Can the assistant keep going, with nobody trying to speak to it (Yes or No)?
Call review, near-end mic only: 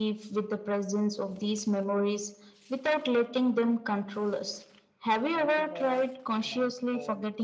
No